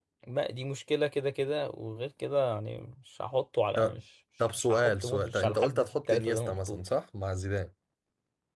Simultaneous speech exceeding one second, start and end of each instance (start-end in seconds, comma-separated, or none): 4.6-6.8